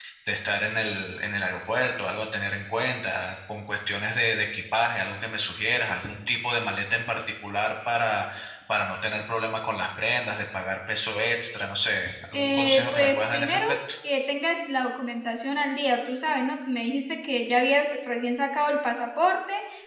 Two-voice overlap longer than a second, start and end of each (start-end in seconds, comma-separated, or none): 12.3-13.8